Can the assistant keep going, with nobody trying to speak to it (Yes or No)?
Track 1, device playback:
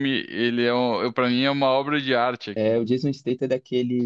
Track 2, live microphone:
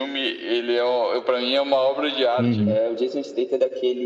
No